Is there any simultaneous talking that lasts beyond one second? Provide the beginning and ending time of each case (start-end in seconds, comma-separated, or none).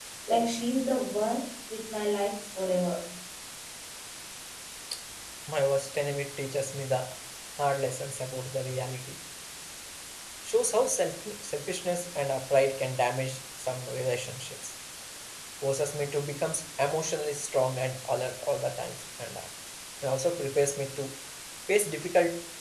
none